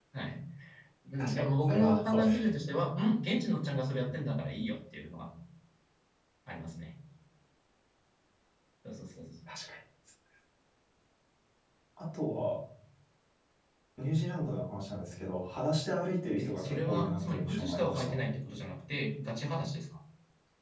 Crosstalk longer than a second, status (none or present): present